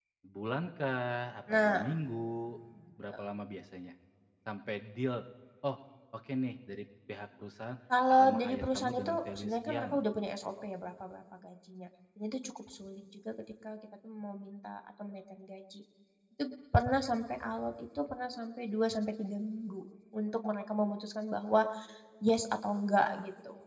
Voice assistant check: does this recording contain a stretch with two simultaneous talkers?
Yes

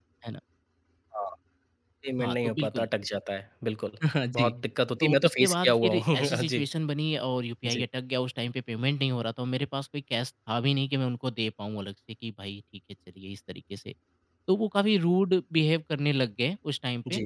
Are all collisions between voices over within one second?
No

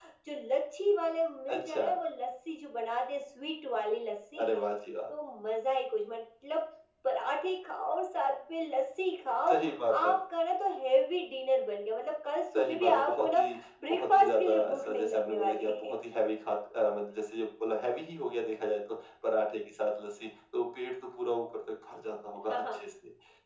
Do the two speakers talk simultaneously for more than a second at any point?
Yes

